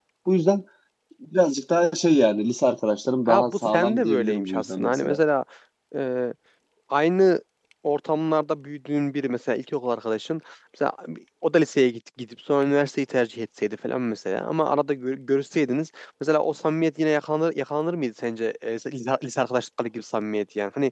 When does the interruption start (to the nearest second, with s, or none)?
3 s